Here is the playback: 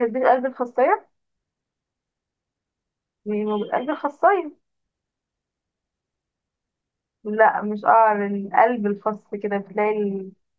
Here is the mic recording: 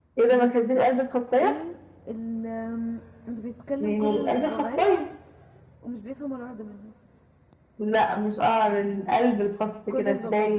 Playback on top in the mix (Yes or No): Yes